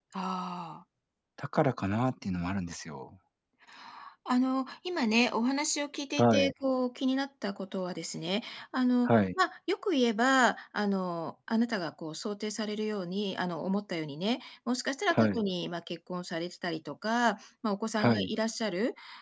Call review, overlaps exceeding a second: none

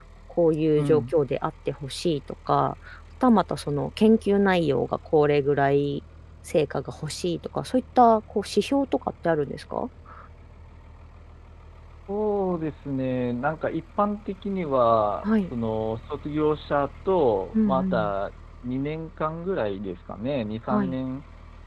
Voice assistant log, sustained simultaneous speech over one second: none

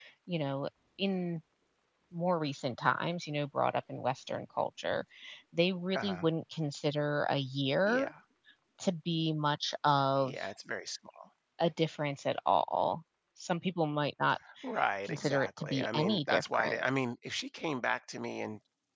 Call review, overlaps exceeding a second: present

